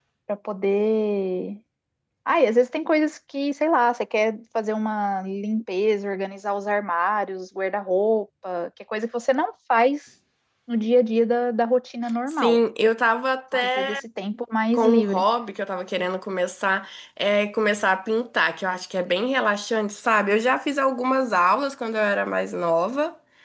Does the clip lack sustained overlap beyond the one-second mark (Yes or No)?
Yes